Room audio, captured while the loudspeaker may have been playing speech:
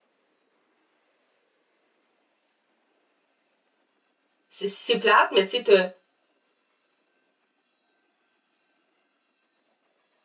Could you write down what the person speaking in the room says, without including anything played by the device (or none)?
c'est c'est plate, mais tu sais, t'as